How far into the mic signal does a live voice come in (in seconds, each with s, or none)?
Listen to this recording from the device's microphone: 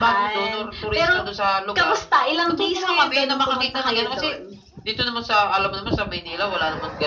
none